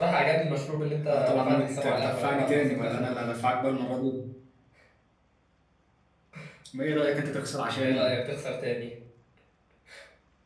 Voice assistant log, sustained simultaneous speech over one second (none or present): present